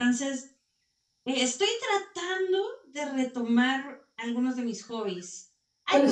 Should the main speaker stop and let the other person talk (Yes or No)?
No